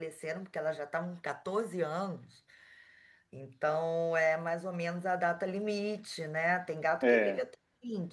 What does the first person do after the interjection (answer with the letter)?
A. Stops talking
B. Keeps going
B